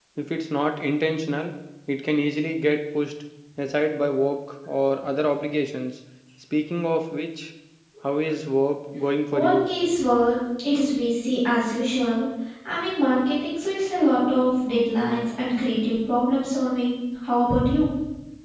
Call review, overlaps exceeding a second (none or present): none